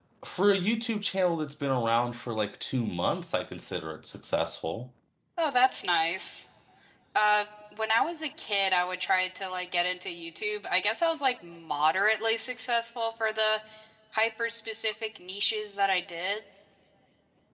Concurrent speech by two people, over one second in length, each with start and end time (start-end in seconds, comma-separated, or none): none